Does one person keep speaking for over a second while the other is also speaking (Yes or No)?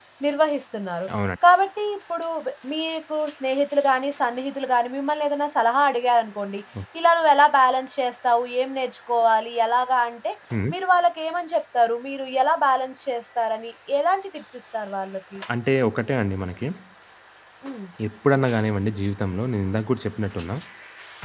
No